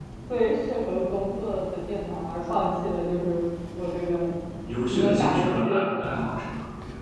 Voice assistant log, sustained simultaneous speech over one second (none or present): present